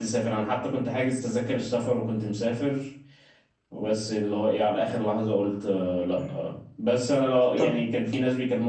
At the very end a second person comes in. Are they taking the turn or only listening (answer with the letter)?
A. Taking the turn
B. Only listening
B